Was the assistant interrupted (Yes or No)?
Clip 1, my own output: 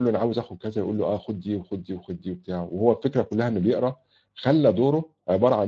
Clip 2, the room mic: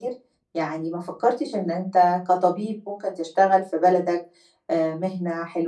Yes